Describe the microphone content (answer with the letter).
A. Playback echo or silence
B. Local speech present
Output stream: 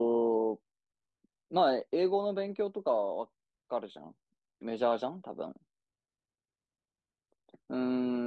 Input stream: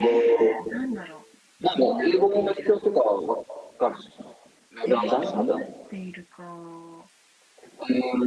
B